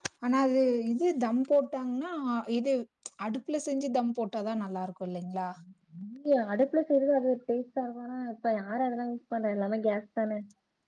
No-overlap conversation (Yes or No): Yes